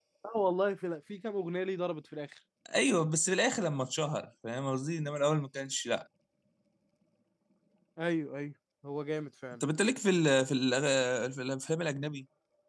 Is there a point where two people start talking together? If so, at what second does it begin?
none

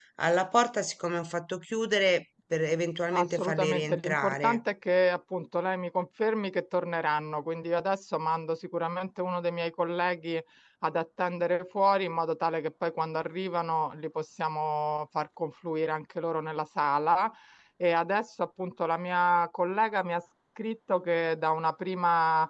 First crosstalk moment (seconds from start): 3.1 s

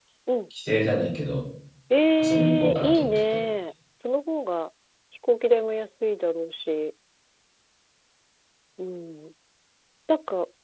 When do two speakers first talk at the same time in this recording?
2.2 s

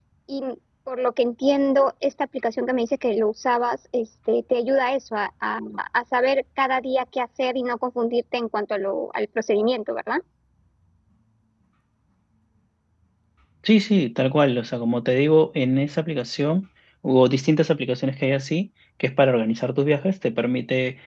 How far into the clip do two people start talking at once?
none

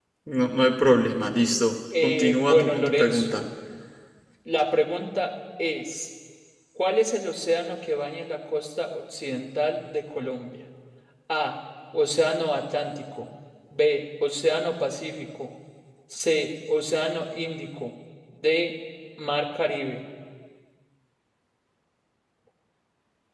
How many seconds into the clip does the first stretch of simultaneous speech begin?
1.9 s

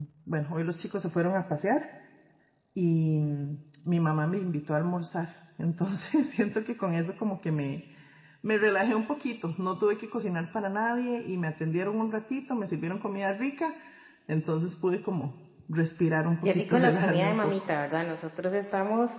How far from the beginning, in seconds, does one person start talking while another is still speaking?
16.4 s

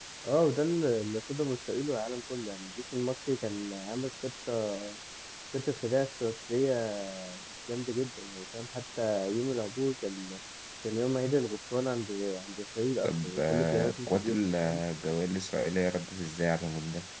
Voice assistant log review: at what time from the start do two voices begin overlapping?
13.0 s

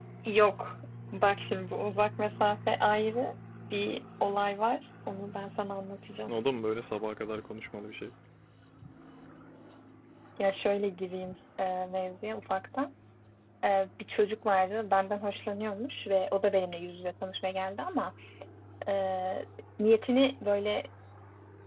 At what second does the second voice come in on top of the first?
none

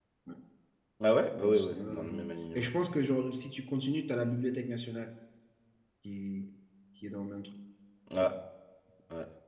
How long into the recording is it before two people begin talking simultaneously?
1.4 s

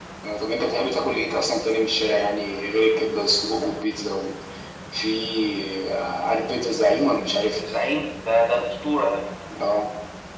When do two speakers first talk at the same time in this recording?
none

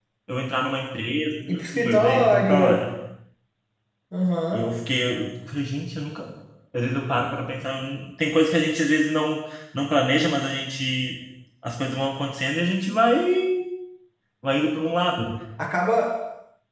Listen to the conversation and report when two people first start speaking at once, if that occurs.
1.5 s

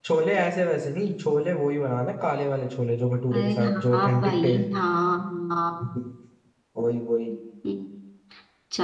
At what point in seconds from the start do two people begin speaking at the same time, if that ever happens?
3.3 s

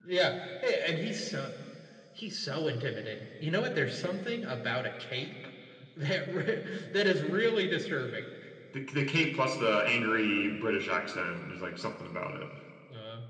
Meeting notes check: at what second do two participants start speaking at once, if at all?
none

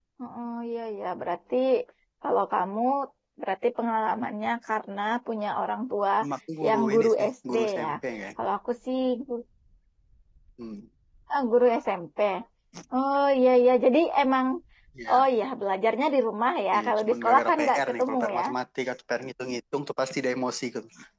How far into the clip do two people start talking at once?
6.7 s

